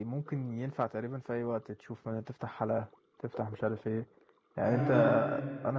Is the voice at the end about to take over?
No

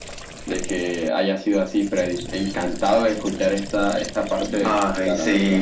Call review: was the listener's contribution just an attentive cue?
No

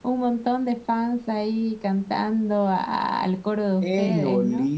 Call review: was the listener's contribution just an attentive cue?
No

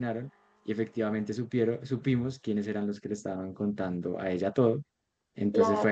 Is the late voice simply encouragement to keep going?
Yes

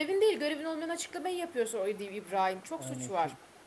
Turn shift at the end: Yes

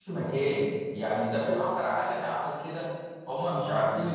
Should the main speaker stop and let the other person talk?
No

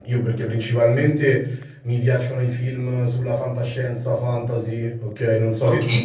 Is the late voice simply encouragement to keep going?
No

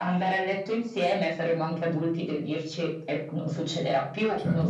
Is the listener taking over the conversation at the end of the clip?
Yes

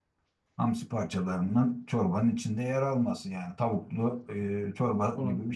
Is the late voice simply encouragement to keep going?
No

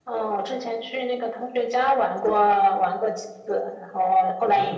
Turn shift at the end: Yes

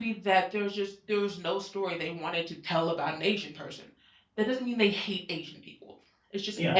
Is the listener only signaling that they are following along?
Yes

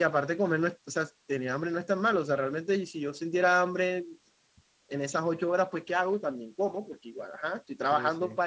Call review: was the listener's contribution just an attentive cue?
Yes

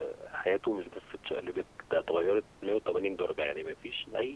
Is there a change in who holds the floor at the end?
No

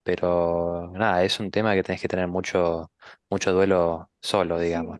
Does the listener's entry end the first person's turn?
Yes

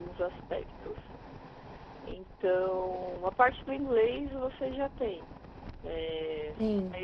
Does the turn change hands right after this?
No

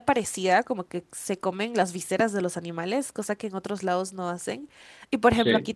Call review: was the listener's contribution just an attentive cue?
Yes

